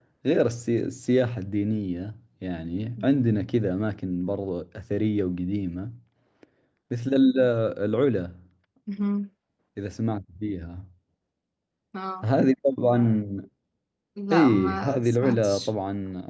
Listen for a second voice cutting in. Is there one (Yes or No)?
Yes